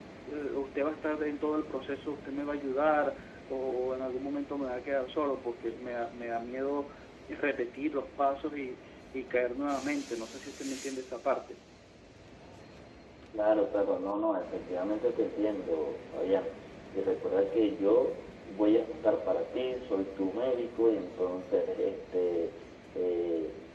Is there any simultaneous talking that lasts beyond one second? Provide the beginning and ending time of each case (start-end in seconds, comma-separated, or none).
none